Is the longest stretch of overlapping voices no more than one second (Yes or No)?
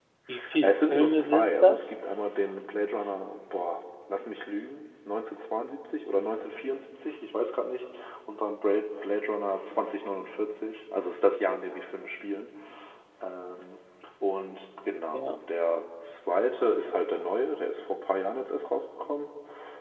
No